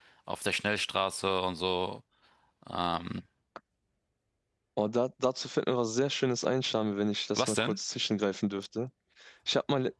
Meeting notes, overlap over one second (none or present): none